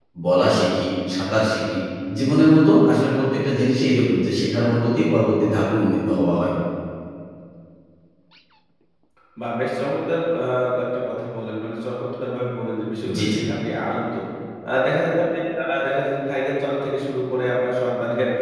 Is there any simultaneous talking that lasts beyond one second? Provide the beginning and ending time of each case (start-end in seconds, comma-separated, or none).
none